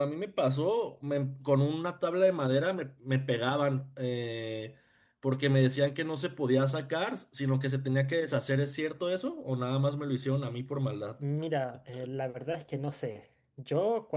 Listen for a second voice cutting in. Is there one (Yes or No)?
No